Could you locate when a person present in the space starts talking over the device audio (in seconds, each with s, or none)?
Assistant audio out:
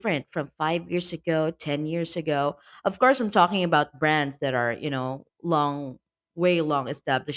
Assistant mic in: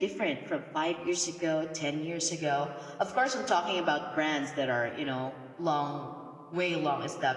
none